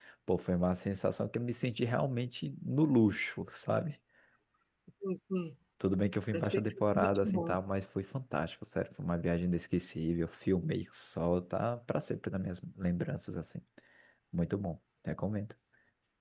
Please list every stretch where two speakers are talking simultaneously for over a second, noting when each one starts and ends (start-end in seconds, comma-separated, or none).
6.3-7.5